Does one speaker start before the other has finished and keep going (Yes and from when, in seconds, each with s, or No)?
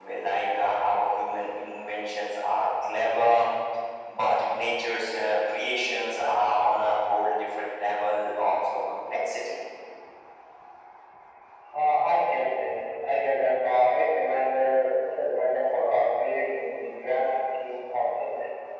No